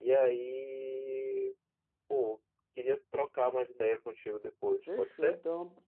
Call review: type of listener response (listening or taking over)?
taking over